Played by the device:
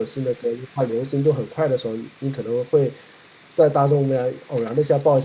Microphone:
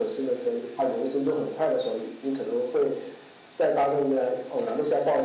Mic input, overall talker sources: echo only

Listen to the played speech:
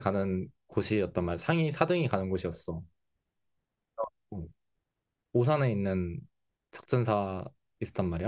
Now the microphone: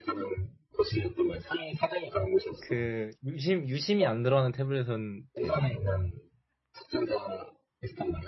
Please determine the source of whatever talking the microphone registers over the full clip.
both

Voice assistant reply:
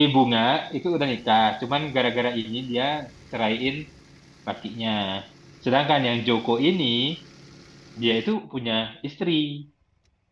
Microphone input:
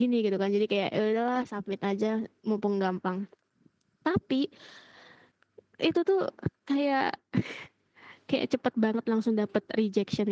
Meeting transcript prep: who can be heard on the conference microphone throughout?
user only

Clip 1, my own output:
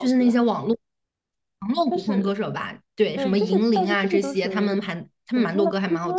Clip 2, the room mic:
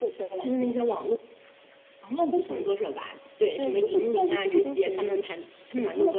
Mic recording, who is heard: echo only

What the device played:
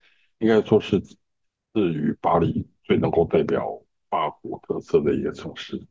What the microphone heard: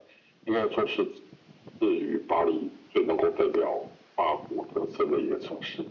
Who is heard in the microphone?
echo only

